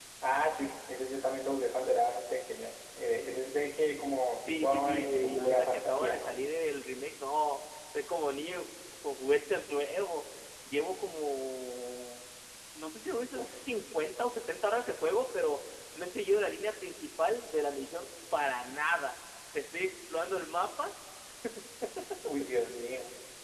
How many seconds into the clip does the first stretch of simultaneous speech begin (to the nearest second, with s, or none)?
4 s